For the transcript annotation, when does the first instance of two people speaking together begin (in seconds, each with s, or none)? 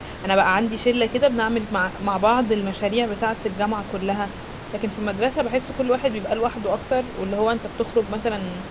none